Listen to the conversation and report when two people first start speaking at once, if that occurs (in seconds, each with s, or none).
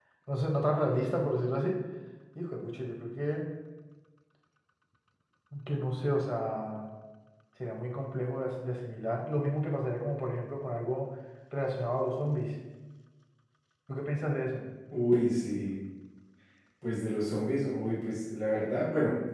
none